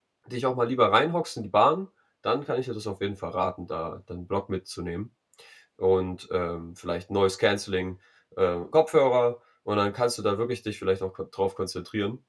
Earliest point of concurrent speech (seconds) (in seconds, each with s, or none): none